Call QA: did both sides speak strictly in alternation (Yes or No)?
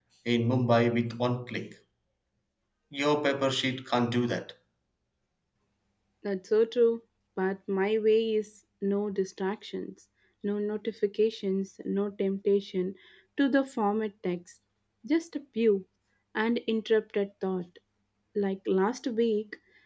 Yes